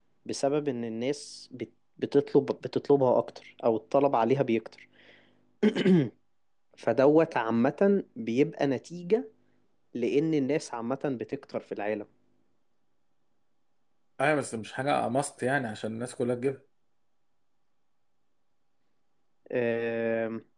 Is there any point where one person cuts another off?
No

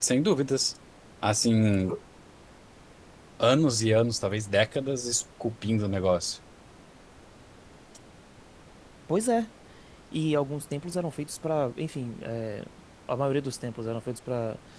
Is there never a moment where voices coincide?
Yes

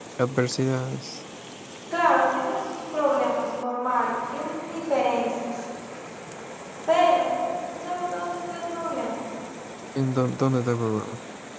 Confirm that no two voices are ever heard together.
Yes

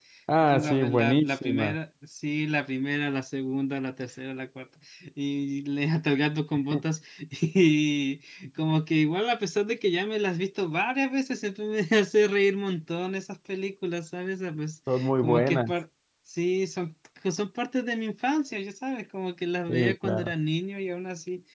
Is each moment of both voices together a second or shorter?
No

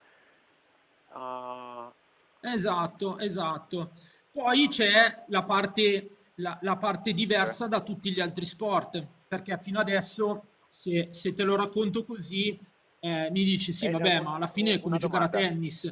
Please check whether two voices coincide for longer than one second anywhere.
Yes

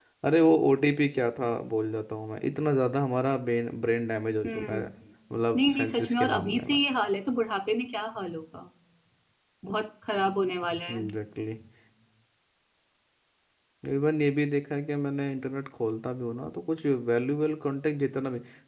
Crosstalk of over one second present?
Yes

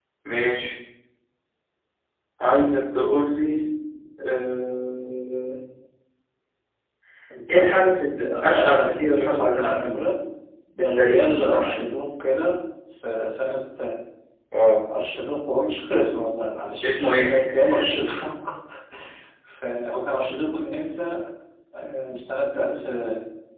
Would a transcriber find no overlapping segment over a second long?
No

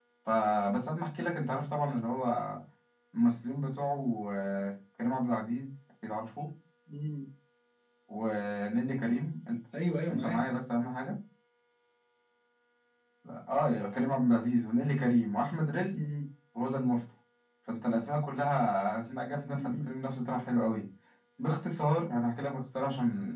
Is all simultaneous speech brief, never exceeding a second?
Yes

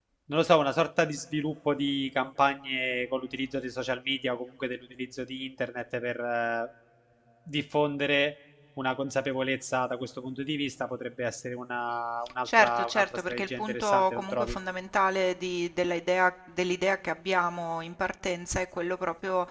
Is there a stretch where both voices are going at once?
Yes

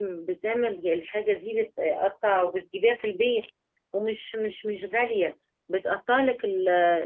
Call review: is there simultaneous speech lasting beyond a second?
No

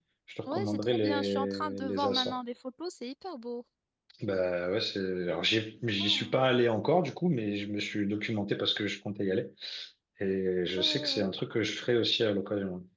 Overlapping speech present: Yes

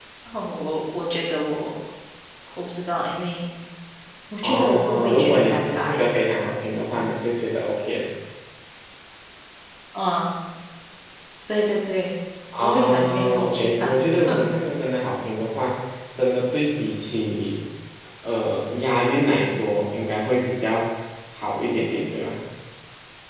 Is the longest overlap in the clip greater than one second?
Yes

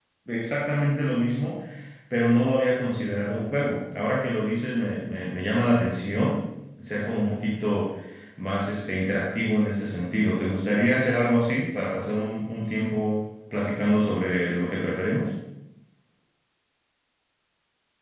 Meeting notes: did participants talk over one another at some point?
No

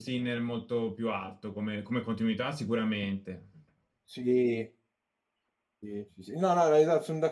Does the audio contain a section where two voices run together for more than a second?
No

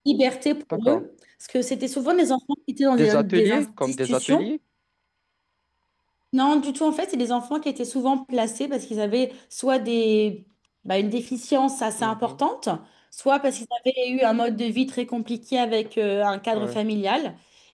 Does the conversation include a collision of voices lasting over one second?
Yes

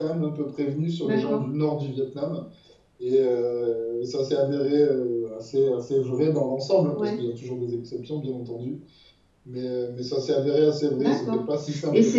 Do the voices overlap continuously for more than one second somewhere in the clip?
No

